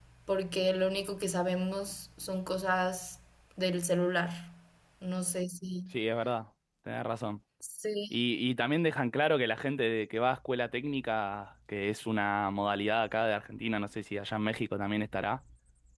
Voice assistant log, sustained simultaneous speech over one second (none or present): none